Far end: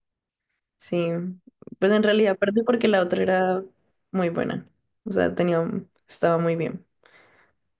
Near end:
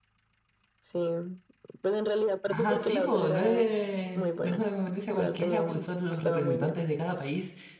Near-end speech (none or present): present